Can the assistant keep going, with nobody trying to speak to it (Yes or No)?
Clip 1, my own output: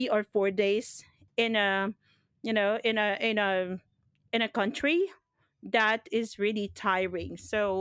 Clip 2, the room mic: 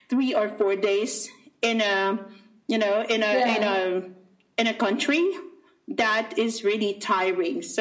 No